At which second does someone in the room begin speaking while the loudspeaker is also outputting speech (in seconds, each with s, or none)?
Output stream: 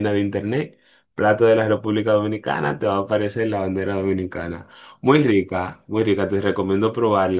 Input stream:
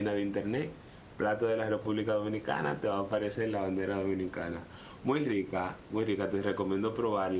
none